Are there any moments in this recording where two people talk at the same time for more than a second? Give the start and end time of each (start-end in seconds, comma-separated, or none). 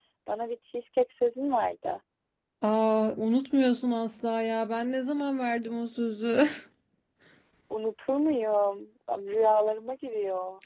none